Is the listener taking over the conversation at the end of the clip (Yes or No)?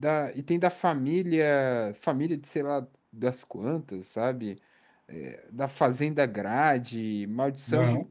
No